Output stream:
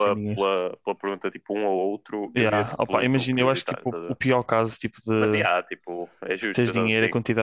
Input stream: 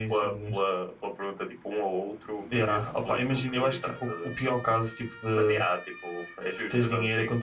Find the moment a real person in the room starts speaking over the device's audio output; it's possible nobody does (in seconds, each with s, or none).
none